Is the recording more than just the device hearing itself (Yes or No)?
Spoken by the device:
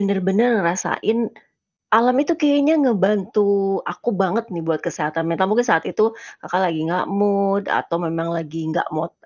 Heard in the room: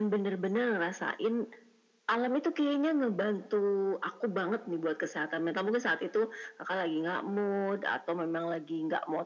No